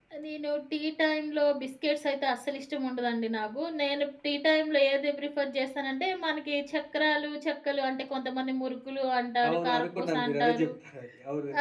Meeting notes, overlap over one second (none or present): present